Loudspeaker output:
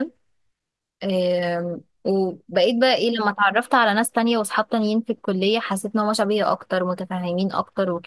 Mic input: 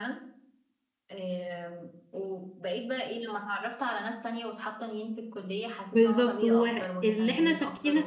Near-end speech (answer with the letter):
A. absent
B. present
B